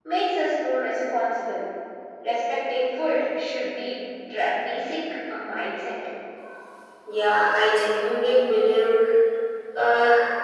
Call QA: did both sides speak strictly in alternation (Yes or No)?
Yes